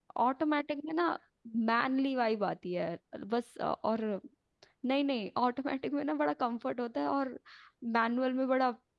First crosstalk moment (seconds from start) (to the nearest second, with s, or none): none